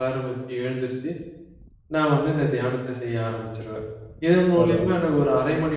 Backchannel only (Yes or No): Yes